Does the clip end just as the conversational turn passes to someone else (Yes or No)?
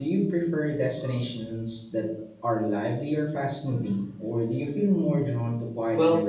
Yes